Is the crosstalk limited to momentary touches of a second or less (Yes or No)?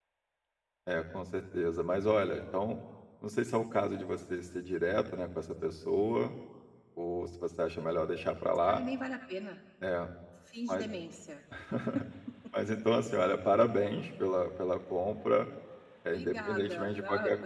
No